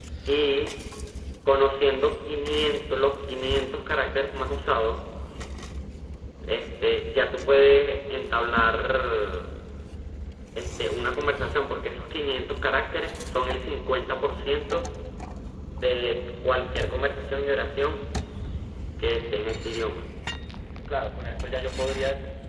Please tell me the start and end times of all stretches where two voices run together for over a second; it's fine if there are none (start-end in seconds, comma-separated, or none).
none